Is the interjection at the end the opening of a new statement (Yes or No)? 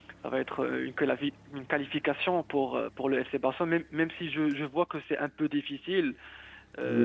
Yes